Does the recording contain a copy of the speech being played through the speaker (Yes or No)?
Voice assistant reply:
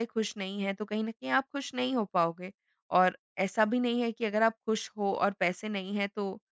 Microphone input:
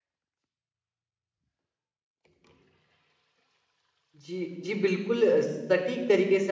No